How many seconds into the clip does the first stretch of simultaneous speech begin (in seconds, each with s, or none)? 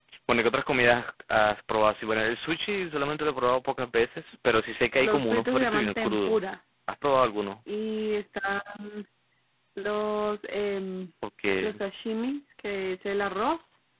5.0 s